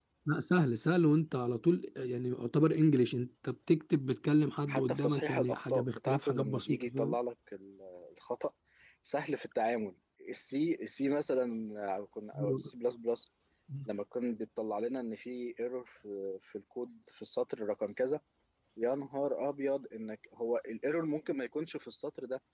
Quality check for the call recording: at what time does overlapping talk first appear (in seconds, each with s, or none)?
4.7 s